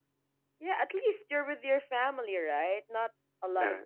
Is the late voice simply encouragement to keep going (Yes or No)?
Yes